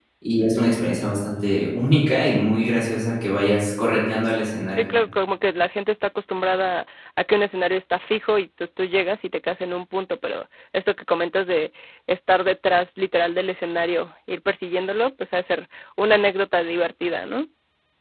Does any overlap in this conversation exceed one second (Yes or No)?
No